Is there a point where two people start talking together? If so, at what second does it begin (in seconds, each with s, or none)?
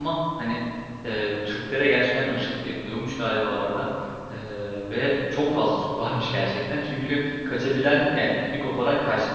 none